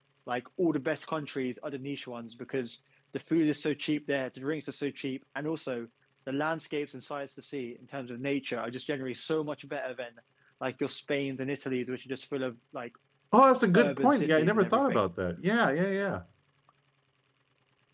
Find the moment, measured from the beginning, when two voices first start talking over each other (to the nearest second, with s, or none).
14 s